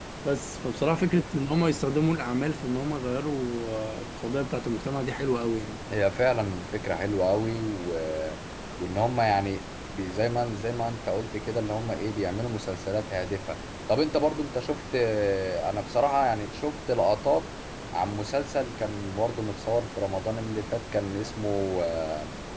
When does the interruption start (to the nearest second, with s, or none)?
none